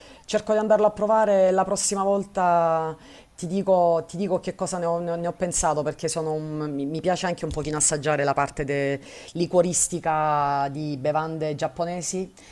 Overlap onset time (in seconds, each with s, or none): none